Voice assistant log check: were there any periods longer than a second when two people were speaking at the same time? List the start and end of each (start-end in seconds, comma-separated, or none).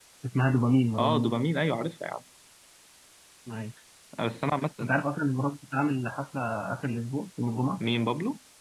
none